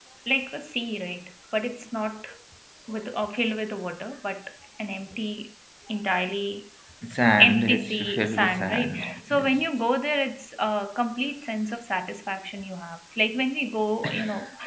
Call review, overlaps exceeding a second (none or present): present